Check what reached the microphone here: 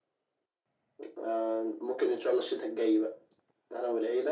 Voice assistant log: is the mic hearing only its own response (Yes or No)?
Yes